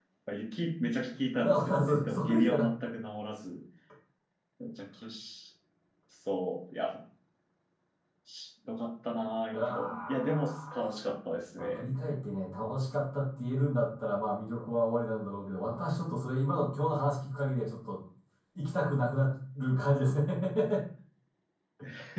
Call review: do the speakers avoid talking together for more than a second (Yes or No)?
No